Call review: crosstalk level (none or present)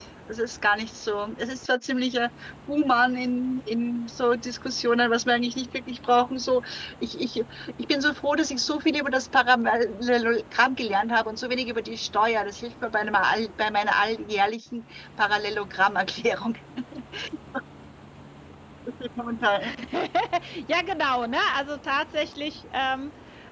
none